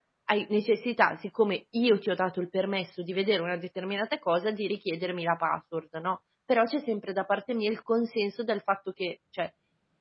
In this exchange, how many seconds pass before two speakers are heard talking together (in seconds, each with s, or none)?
none